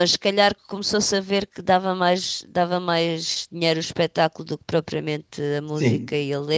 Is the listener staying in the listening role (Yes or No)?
No